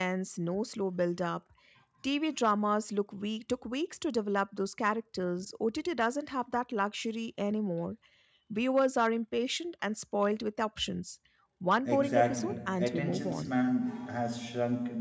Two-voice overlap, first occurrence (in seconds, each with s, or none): 11.8 s